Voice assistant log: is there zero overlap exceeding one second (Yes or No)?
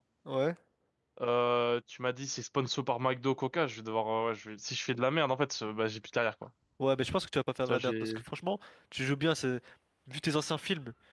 Yes